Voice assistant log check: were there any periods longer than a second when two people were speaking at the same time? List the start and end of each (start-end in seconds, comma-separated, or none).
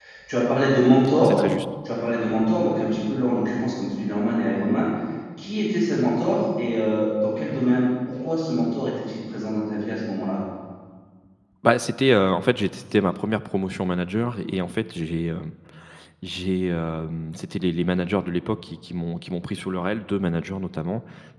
none